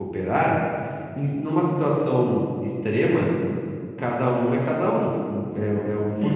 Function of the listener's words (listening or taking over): taking over